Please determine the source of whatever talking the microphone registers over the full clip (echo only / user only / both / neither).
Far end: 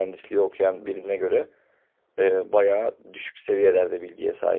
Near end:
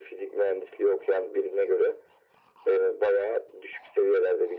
echo only